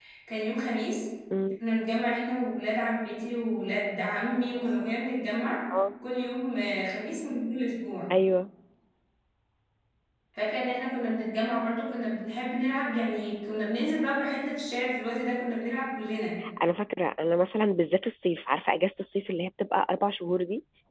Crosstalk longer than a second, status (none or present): none